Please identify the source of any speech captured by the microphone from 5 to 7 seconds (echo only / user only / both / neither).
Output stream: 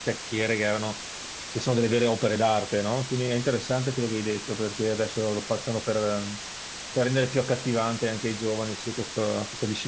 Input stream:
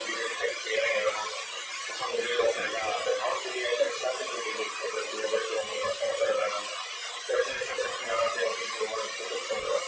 echo only